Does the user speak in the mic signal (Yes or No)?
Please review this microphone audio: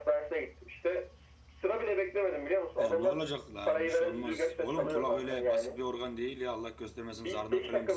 Yes